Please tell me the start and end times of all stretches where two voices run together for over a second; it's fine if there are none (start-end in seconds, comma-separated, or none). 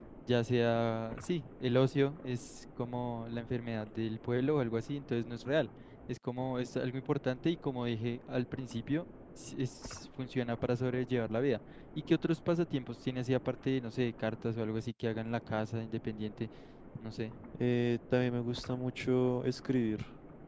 none